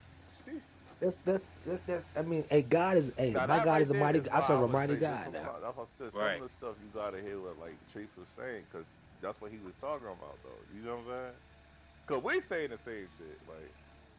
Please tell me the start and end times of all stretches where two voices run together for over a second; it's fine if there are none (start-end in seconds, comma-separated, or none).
3.3-5.5